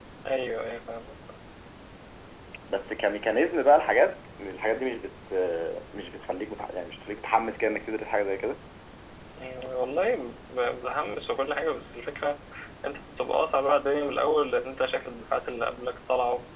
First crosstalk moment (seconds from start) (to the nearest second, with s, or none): none